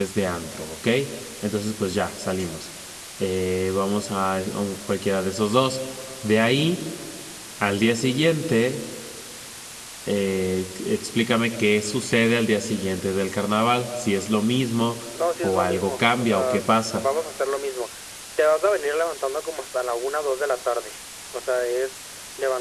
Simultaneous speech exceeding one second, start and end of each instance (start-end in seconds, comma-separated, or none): 15.4-17.0